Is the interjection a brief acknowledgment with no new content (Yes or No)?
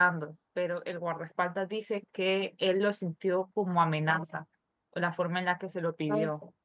No